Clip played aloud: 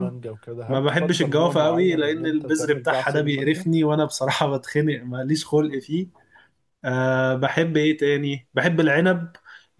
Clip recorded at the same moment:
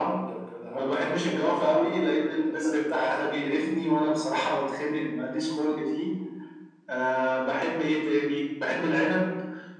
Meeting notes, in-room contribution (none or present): none